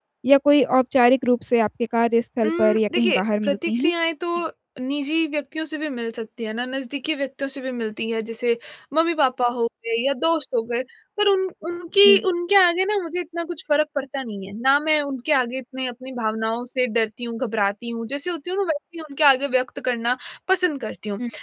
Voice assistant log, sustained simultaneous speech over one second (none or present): present